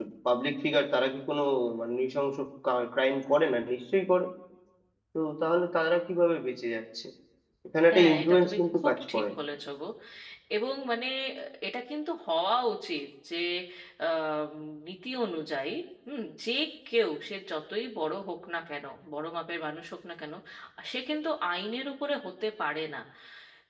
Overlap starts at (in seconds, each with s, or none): 7.9 s